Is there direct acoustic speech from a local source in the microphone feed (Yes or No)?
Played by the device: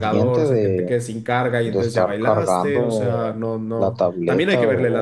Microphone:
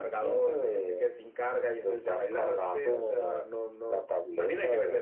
No